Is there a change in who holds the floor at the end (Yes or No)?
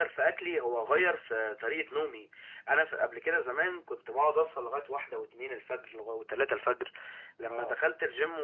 No